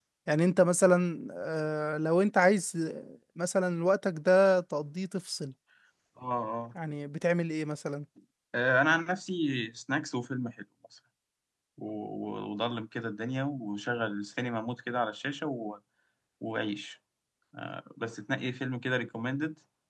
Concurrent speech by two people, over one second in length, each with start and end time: none

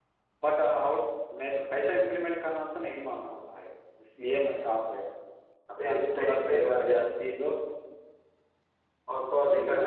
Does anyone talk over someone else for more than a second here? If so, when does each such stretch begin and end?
5.8-7.3

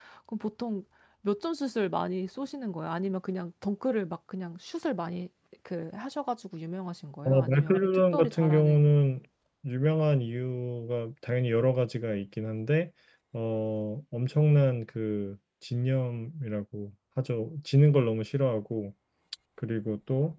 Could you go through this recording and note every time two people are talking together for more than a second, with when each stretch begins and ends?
7.2-8.9

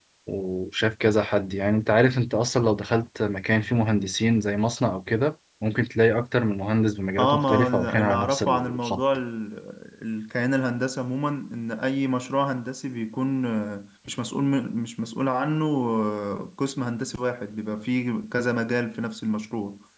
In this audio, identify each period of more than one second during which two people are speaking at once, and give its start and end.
7.2-9.0

